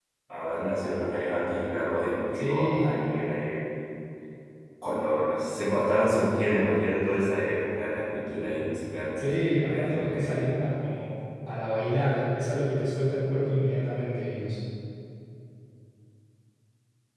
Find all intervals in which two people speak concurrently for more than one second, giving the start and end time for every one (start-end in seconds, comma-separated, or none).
9.2-10.6